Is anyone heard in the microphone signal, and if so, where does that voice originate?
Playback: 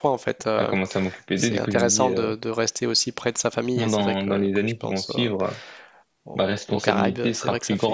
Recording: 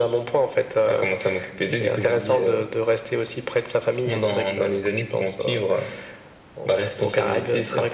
echo only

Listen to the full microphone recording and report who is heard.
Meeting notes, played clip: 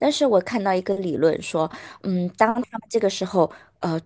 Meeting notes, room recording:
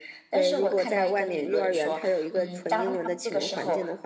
both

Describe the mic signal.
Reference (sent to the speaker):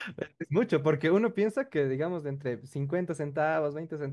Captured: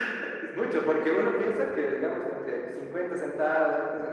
echo only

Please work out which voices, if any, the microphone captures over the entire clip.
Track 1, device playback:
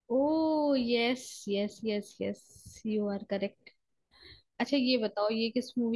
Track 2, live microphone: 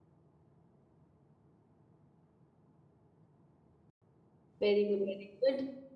user only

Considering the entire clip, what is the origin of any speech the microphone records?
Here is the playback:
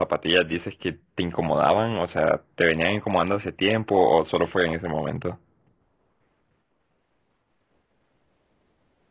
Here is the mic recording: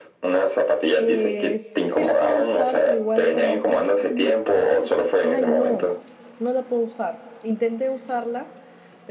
both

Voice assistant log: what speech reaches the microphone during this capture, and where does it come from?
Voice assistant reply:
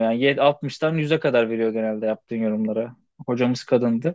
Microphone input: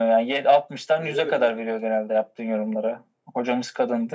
both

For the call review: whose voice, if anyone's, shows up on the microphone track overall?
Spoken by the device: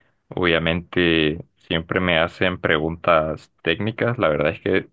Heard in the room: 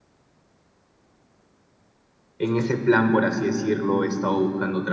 user only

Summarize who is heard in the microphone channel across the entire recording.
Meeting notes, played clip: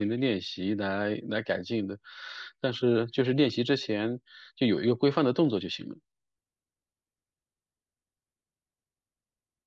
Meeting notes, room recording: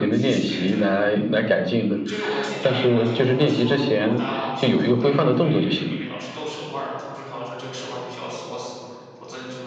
both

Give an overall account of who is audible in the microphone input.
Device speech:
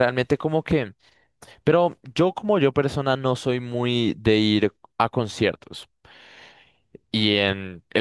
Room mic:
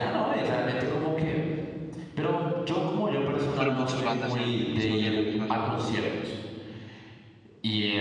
both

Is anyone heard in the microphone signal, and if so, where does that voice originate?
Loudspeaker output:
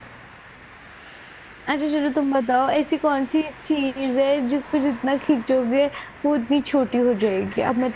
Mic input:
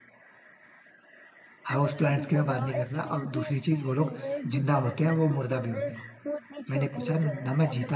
both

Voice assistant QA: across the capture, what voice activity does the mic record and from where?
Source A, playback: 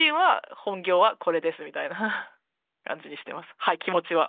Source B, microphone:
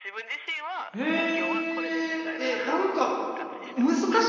both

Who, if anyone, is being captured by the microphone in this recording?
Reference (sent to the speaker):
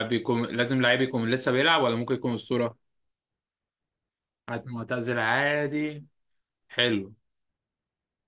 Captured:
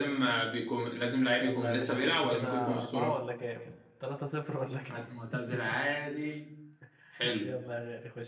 both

